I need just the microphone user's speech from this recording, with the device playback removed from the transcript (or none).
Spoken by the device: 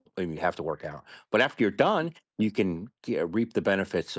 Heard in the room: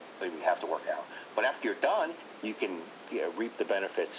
none